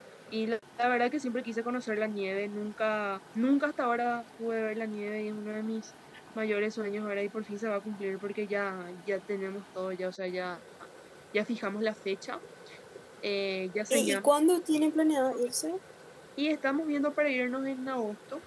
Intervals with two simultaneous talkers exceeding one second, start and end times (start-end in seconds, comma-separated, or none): none